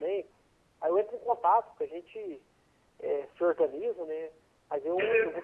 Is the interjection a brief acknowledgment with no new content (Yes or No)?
Yes